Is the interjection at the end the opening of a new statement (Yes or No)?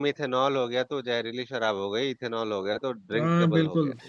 Yes